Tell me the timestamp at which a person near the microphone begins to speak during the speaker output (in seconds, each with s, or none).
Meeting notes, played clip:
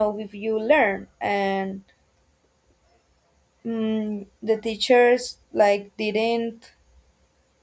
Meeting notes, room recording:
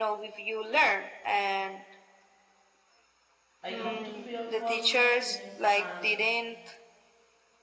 3.6 s